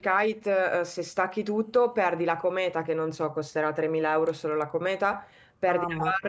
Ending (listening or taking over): listening